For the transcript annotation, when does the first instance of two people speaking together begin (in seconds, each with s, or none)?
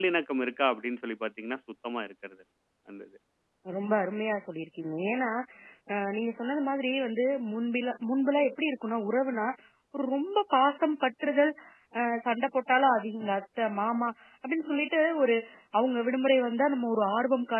none